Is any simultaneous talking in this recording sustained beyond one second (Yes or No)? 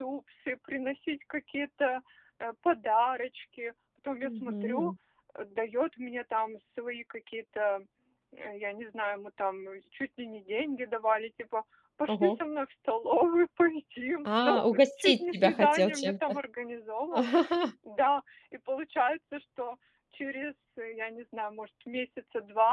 Yes